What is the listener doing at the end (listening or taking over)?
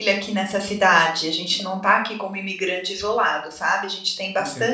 taking over